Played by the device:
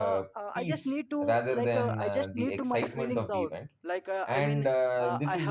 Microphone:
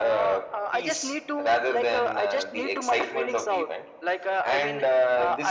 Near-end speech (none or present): none